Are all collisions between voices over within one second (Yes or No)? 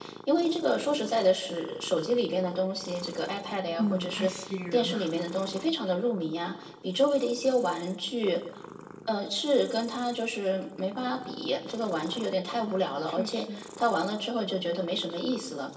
Yes